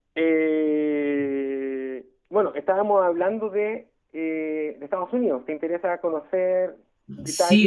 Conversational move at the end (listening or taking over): taking over